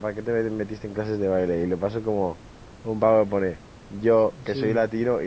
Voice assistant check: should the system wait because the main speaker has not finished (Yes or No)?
Yes